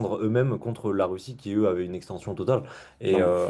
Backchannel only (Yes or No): Yes